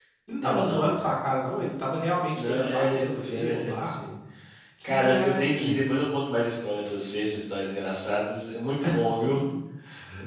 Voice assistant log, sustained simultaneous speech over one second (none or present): present